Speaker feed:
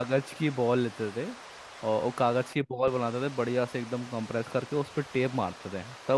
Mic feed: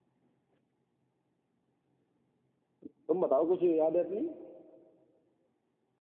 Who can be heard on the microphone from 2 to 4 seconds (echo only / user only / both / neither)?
user only